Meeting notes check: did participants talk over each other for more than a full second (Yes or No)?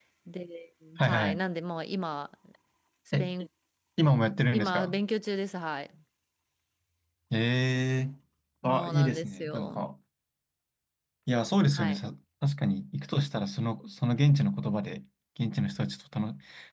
Yes